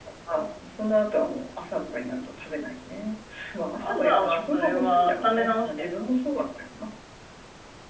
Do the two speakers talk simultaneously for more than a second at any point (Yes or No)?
Yes